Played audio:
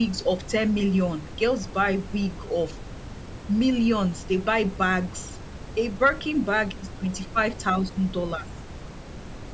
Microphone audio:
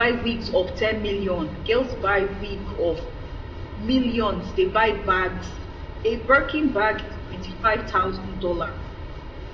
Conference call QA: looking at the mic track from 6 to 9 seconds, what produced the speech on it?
echo only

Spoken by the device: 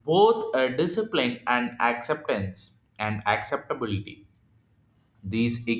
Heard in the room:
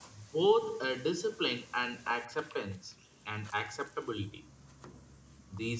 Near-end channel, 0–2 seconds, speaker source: echo only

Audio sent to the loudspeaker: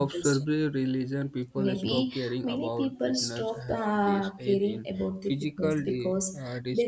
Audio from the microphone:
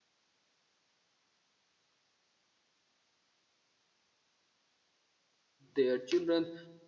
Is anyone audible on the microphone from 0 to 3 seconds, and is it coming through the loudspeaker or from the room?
neither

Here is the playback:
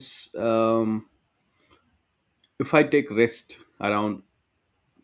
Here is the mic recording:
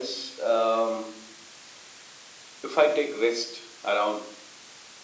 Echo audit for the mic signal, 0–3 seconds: echo only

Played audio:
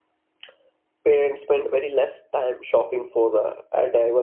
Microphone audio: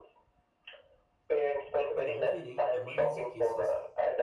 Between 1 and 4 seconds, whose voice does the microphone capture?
both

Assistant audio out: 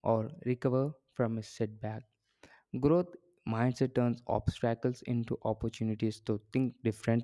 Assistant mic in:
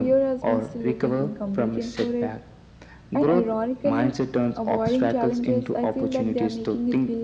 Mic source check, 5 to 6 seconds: both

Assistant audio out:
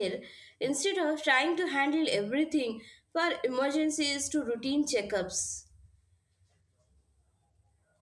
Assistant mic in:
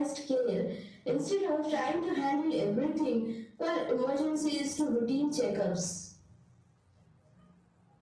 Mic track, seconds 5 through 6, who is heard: echo only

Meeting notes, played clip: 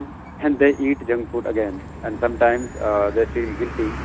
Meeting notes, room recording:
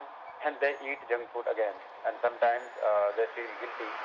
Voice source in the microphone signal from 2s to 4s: echo only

